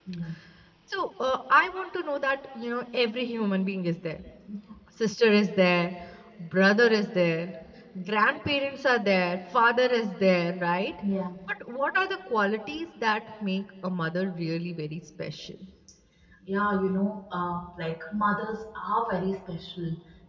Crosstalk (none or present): none